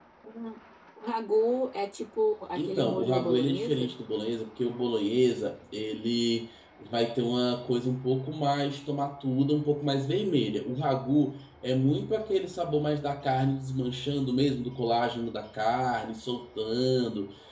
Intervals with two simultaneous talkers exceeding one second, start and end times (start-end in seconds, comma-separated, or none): 2.6-3.9